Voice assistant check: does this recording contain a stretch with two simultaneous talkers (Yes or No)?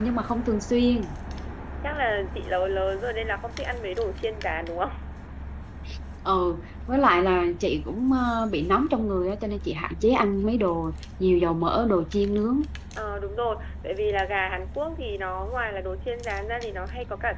No